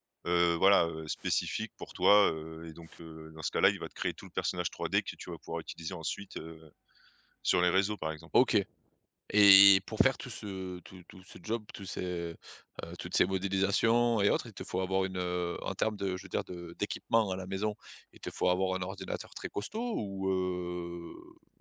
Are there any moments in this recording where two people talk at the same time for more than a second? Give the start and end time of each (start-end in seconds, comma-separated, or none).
none